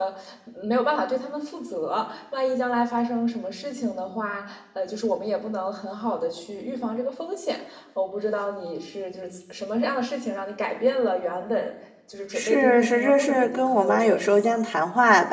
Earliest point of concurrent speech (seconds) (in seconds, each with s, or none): 12.3 s